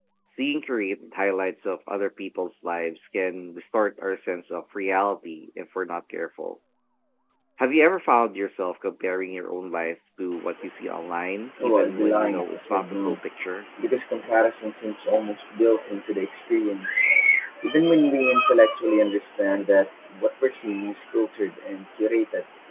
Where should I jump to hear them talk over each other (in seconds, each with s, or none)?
11.6 s